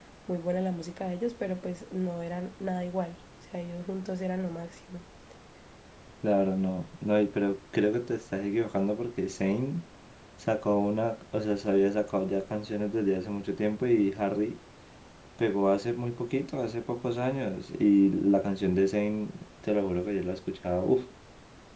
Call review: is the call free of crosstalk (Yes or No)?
Yes